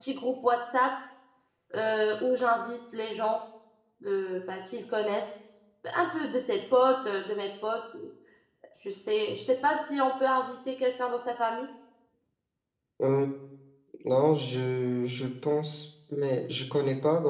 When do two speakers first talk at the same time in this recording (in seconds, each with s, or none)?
none